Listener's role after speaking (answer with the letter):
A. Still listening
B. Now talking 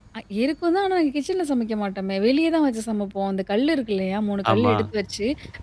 A